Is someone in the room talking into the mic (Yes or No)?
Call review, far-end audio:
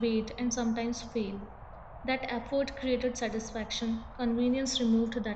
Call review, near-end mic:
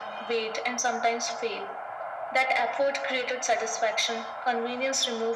No